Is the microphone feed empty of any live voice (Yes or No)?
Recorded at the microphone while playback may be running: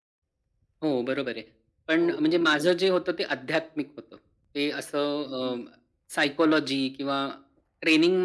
No